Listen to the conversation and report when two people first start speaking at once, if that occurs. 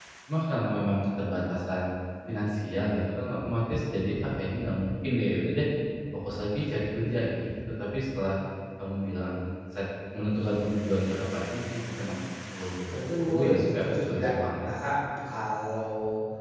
13 s

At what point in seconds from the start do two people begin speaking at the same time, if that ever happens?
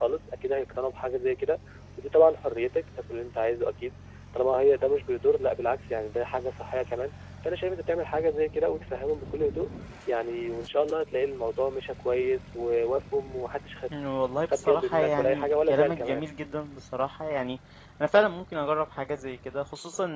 15 s

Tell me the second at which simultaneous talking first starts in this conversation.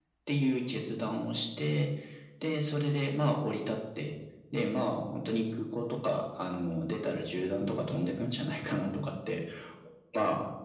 none

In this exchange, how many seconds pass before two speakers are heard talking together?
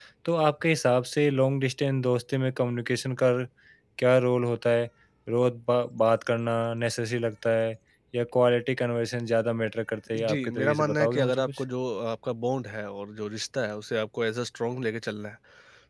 10 s

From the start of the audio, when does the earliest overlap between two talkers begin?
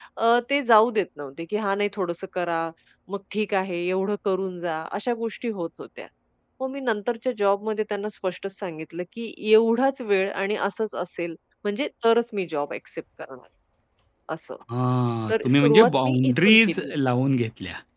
15 s

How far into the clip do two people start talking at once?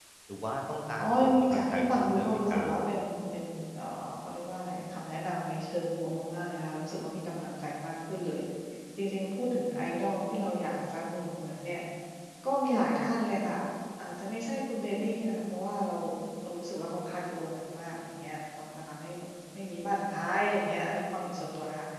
1 s

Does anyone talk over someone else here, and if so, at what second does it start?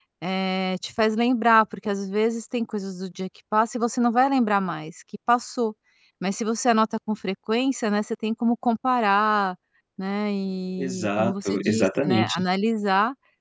11 s

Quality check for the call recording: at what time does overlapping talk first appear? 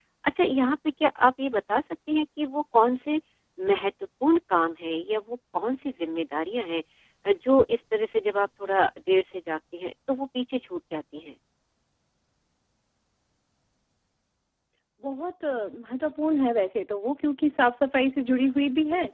none

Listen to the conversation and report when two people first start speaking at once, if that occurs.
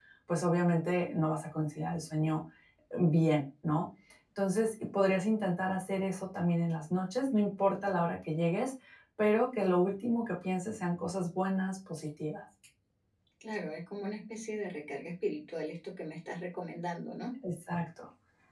none

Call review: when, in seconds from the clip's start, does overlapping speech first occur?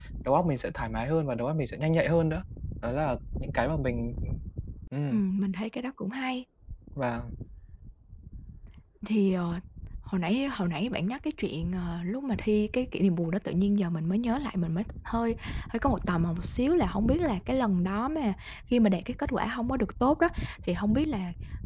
none

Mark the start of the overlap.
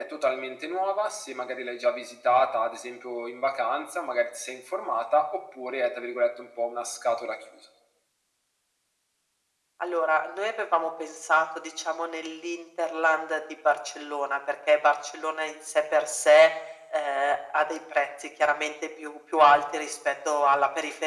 none

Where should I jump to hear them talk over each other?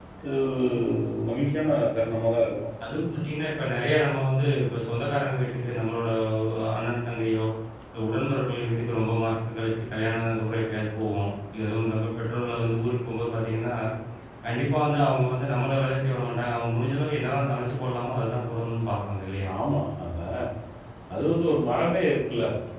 none

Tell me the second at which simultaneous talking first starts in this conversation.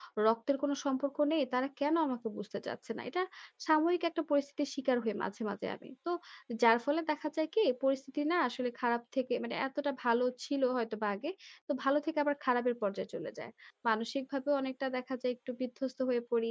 none

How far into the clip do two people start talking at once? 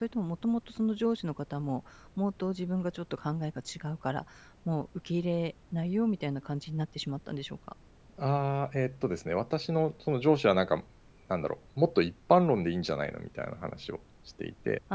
none

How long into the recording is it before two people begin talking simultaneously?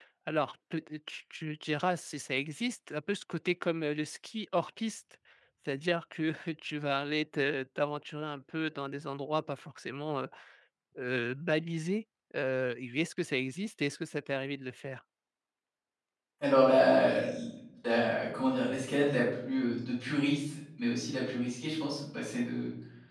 none

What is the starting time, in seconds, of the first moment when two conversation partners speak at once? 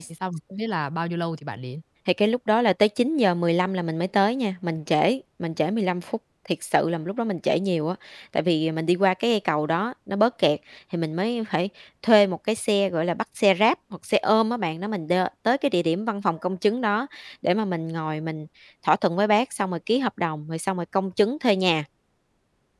none

